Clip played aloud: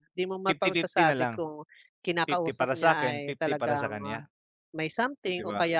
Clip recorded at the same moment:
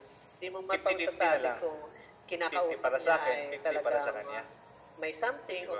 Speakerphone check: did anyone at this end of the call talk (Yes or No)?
No